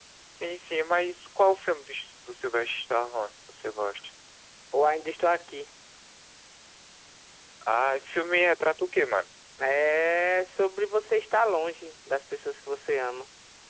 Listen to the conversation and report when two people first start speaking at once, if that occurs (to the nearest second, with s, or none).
none